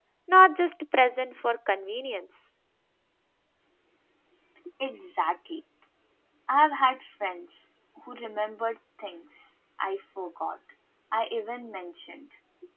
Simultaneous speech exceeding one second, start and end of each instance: none

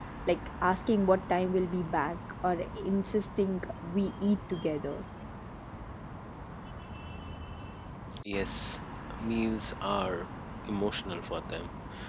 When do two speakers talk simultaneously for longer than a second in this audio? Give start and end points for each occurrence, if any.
none

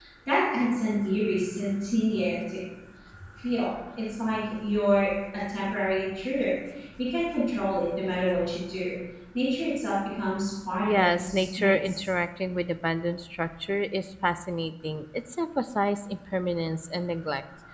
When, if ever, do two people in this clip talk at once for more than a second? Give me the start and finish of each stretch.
10.8-12.0

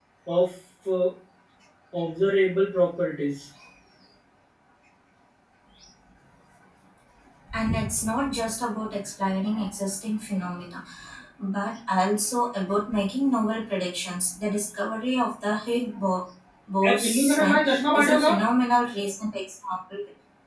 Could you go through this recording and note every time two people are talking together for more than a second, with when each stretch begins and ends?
16.9-18.3

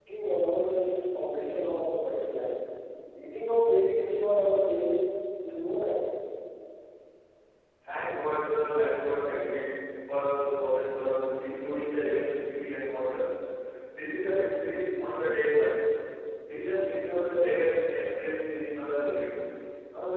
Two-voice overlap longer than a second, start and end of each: none

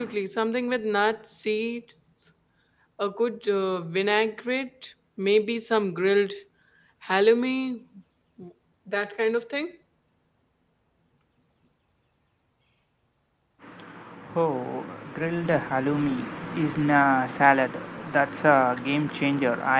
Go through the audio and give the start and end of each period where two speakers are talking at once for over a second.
none

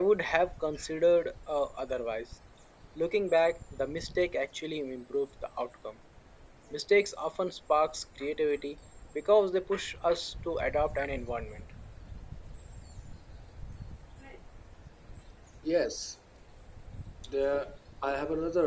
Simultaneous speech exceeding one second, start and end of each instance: none

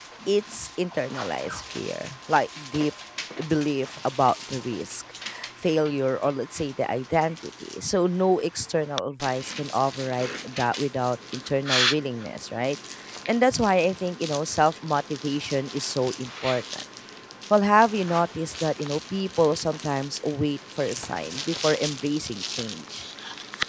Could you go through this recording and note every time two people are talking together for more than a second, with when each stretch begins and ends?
none

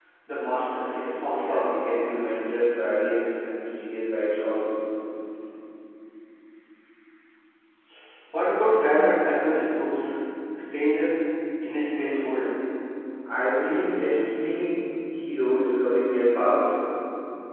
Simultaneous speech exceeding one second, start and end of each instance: 0.9-2.2

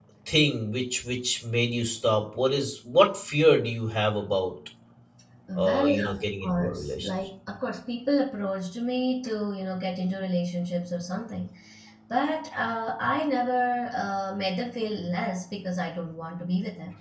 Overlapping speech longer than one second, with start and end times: 5.6-7.1

